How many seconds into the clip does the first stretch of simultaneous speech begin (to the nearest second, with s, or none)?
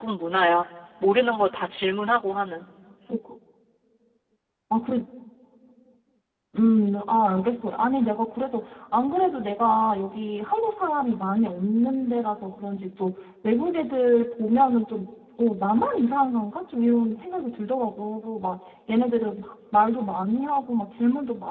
none